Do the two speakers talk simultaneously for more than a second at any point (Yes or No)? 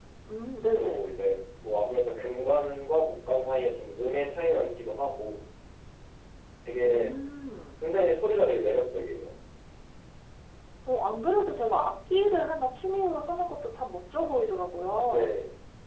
No